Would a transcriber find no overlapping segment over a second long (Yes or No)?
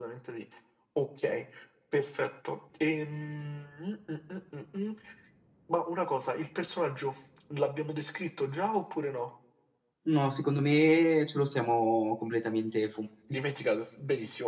Yes